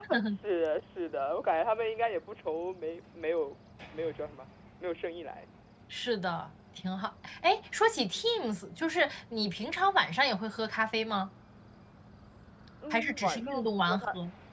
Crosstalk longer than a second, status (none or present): present